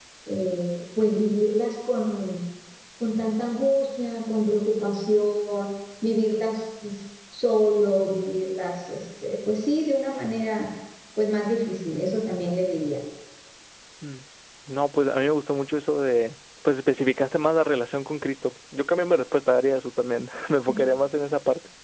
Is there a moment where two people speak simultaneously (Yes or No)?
No